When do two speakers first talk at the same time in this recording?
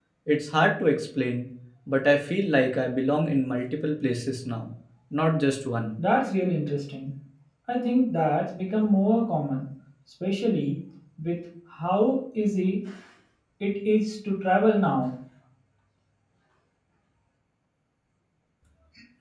none

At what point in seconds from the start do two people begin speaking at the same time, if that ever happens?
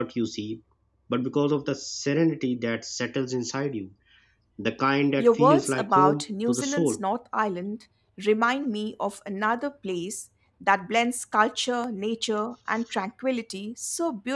5.2 s

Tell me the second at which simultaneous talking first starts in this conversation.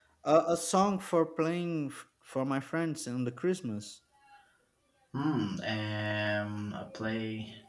none

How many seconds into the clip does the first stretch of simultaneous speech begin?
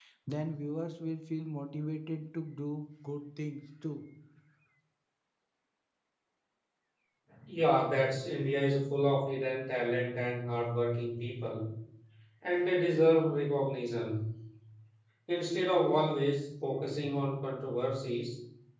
none

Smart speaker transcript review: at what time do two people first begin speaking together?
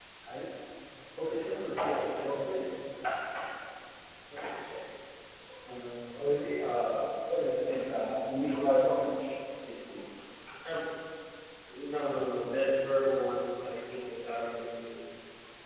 1.3 s

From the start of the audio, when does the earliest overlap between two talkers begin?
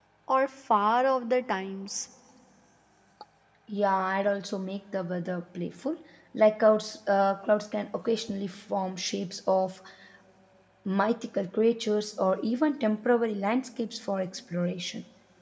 none

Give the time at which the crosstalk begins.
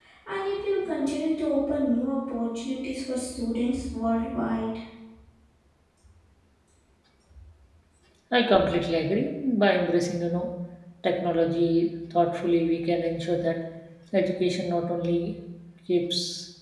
none

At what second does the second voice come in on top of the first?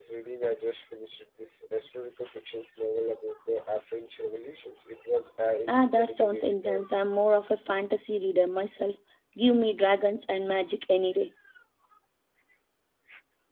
5.7 s

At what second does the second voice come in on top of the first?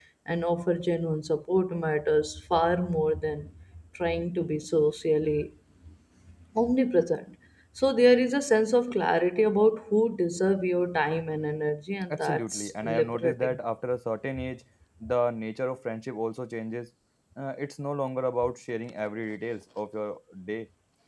12.1 s

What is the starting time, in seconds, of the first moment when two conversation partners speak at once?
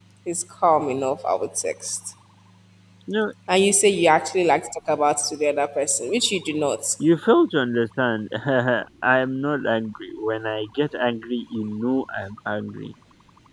none

